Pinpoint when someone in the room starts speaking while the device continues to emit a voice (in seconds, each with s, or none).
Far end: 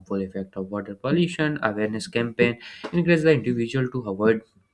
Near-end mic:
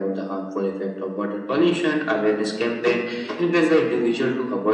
none